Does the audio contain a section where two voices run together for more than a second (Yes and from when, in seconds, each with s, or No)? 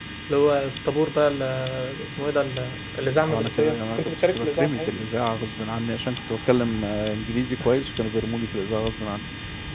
Yes, from 3.3 s